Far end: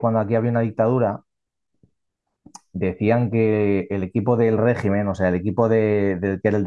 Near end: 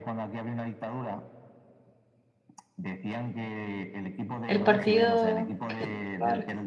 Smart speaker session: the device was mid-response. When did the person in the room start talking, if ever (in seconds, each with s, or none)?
4.5 s